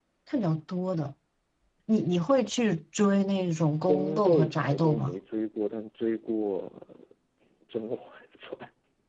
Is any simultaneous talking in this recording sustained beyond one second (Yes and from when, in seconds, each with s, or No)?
Yes, from 3.9 s